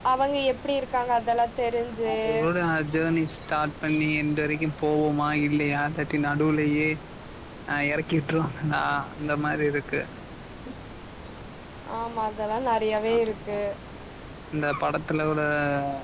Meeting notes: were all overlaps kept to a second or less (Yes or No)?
Yes